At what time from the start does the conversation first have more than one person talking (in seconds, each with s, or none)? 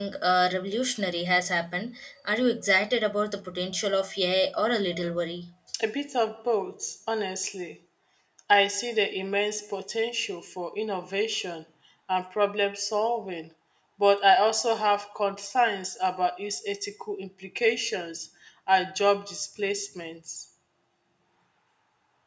none